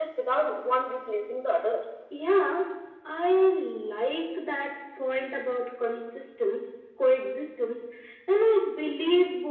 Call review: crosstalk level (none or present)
none